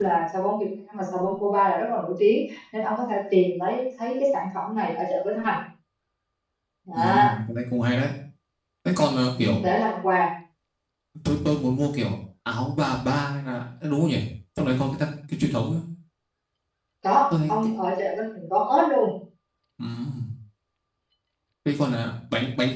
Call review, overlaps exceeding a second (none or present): none